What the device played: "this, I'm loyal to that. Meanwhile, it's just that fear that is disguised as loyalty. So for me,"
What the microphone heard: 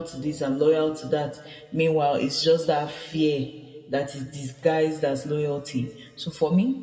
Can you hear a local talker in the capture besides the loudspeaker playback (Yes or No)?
No